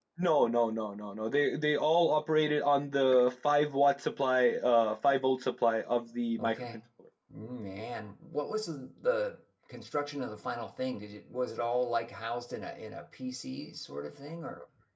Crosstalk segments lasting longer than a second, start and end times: none

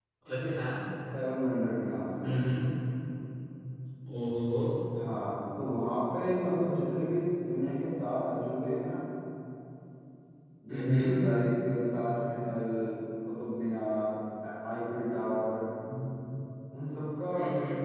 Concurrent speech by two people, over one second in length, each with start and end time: none

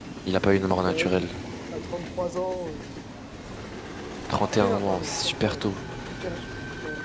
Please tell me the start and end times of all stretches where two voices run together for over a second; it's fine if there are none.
4.4-5.7

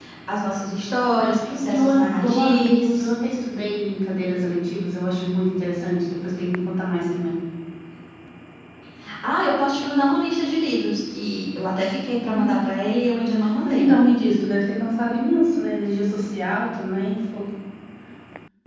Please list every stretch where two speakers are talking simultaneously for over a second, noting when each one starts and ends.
1.2-3.1

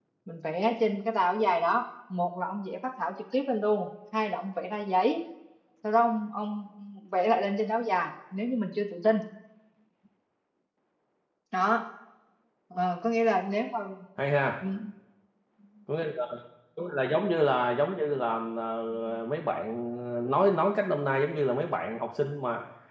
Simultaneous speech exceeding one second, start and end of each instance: none

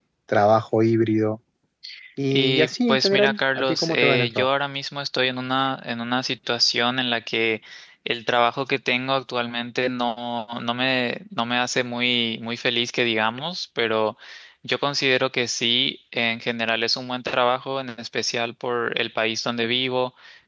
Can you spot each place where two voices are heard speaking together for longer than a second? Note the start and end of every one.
2.3-4.5

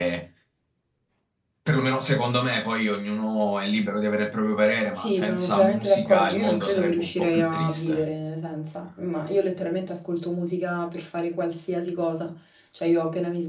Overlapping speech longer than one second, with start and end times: 5.0-8.0

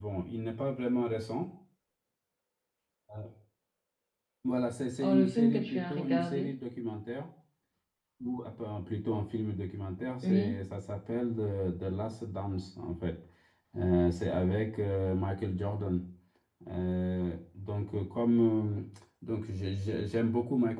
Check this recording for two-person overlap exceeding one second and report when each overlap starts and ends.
5.0-6.5

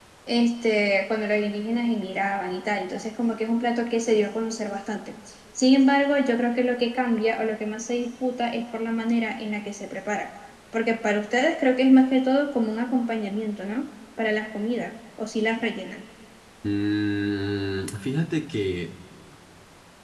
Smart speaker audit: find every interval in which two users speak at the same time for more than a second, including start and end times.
none

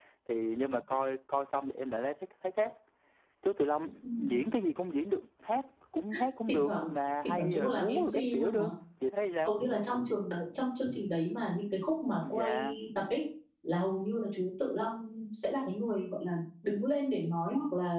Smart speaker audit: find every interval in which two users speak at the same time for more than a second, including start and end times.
7.2-8.6

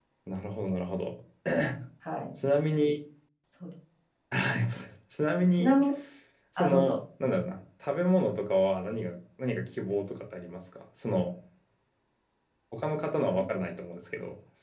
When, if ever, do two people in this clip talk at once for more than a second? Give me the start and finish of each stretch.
none

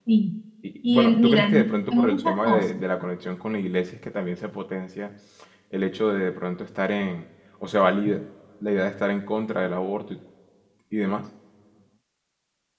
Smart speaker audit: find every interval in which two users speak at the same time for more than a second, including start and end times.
0.9-2.8

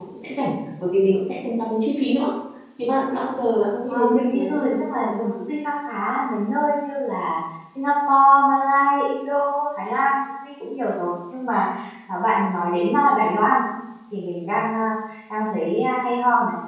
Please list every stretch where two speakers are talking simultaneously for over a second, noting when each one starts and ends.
3.9-5.3

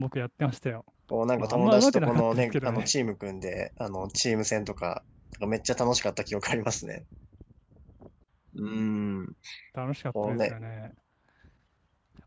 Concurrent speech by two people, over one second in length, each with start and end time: 1.4-2.9

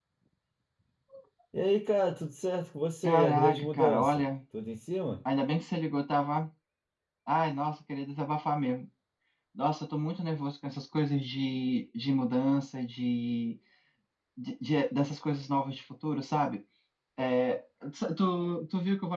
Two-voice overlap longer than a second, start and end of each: 3.0-4.3

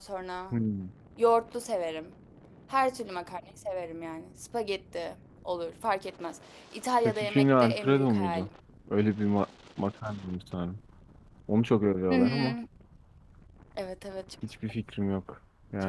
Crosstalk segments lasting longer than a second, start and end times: 7.0-8.5

